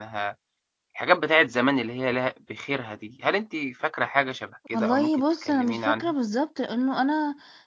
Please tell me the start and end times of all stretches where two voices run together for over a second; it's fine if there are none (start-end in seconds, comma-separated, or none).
4.7-6.1